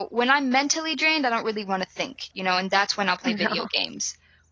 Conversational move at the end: listening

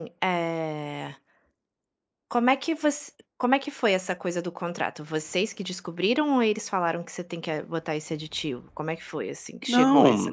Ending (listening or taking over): taking over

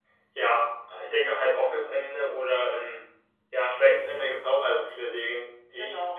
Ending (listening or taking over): listening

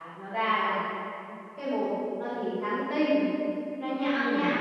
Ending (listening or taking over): listening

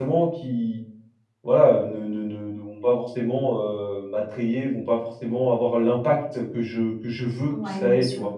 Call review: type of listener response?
taking over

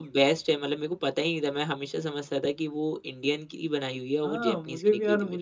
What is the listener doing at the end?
taking over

